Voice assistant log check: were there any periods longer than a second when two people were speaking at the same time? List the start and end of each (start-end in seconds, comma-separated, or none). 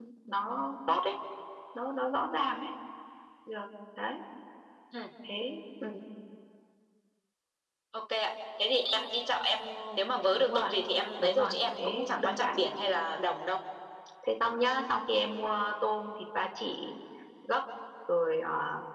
11.2-12.7